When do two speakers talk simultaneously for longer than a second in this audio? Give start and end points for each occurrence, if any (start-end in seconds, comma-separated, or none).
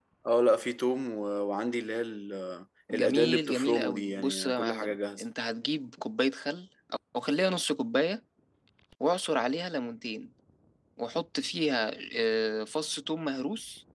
2.9-5.2